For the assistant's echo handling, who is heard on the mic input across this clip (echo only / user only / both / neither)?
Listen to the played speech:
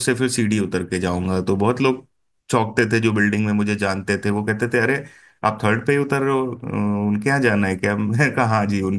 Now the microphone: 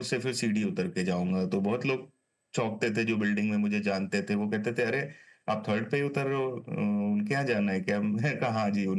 echo only